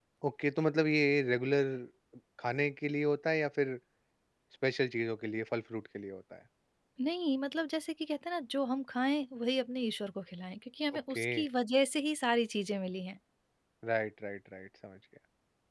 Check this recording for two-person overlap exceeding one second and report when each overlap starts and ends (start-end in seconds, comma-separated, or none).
none